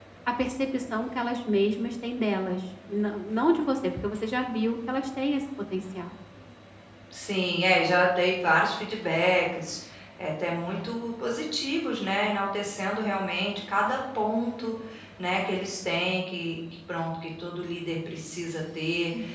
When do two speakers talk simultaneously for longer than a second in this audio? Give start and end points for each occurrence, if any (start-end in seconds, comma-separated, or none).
none